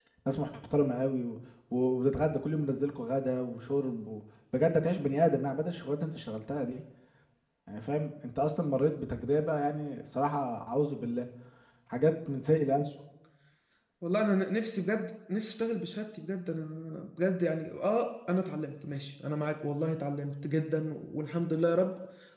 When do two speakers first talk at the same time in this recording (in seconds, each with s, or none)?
none